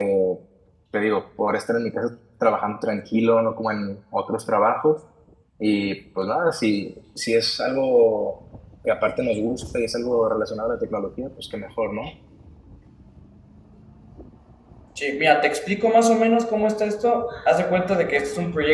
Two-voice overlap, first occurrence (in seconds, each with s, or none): none